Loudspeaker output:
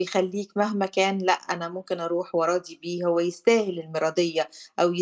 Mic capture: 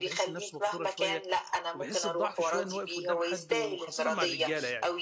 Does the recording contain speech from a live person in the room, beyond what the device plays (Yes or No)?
Yes